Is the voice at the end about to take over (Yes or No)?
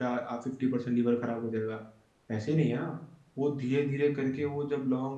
No